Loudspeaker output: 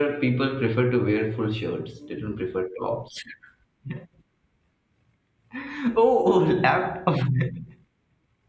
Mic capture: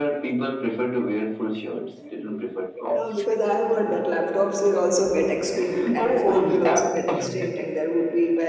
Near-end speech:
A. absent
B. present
B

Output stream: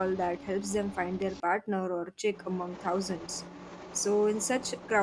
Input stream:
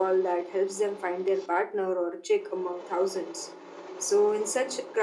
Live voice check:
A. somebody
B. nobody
B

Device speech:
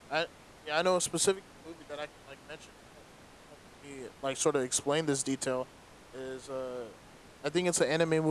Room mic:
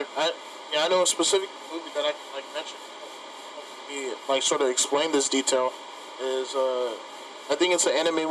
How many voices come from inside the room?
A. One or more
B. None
B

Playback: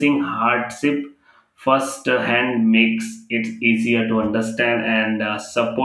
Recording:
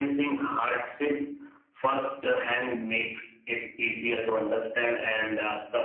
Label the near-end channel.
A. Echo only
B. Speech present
A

